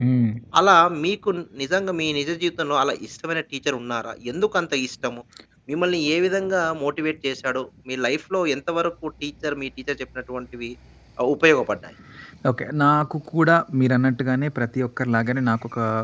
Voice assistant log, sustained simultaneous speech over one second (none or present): none